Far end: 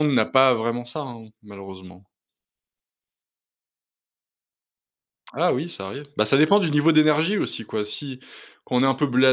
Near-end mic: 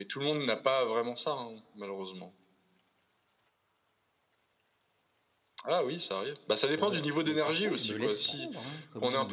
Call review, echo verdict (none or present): present